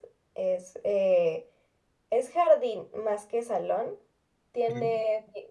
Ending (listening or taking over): listening